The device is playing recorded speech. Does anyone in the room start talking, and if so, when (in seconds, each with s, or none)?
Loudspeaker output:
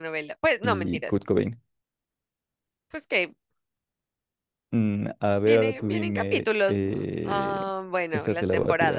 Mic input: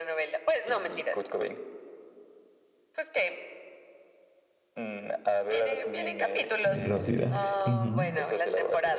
6.6 s